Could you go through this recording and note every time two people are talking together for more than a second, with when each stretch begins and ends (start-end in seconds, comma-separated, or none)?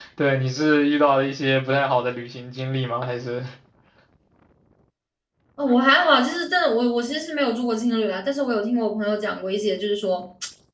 none